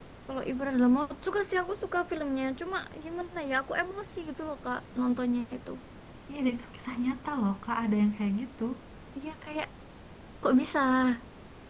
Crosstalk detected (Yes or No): No